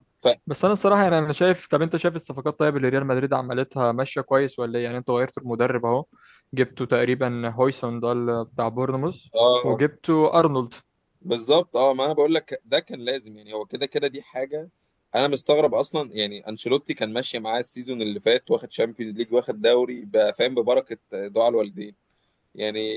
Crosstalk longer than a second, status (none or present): none